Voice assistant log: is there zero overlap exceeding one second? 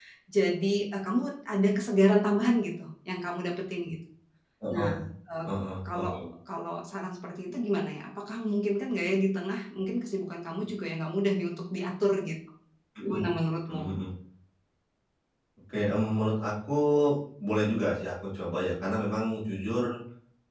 Yes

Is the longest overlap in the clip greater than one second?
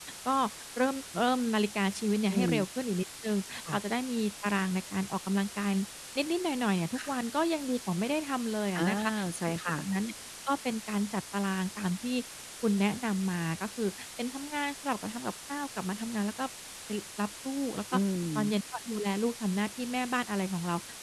No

